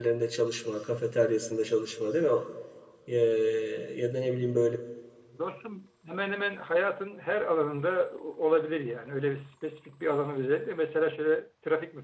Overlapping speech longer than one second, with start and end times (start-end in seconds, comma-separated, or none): none